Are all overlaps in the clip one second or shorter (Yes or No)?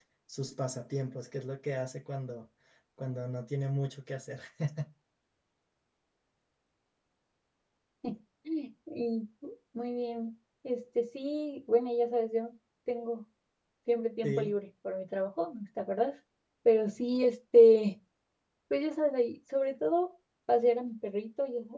Yes